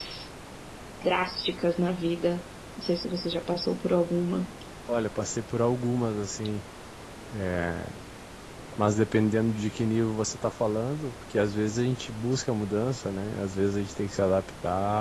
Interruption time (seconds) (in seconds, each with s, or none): none